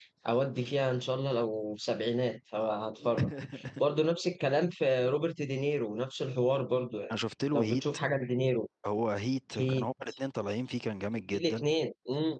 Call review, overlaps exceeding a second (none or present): none